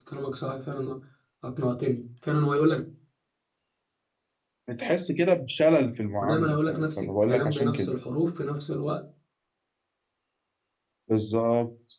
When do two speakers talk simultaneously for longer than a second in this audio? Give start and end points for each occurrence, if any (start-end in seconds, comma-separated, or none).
6.2-7.9